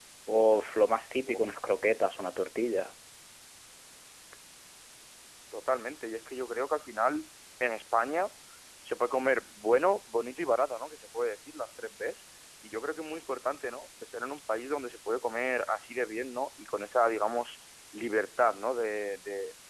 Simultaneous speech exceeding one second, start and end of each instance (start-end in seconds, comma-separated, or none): none